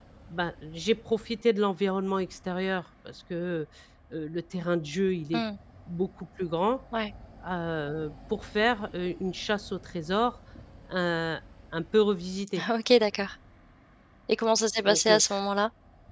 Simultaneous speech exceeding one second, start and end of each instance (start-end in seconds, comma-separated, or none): none